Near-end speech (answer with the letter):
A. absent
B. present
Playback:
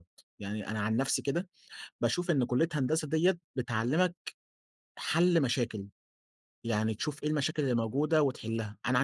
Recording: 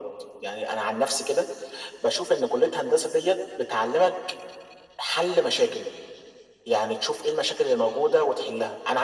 A